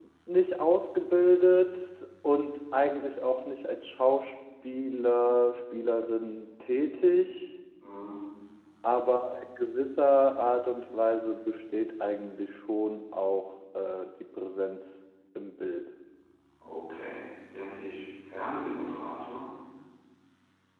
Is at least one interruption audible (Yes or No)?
No